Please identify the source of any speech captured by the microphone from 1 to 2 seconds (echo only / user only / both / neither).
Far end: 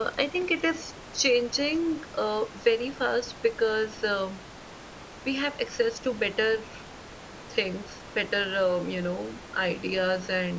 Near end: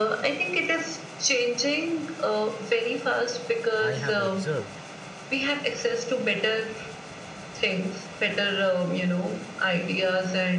echo only